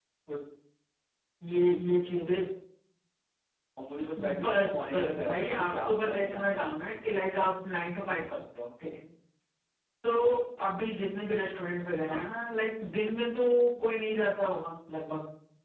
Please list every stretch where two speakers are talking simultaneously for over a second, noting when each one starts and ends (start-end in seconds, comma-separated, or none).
4.4-6.9